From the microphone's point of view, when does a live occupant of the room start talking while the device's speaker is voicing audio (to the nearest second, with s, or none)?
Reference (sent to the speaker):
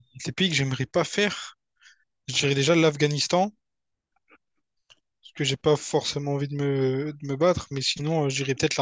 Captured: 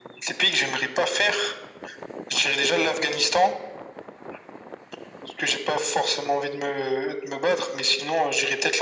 none